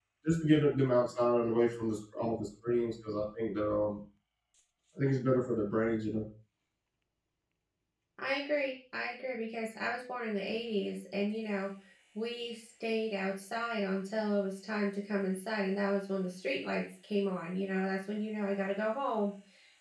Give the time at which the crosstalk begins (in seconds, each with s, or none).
none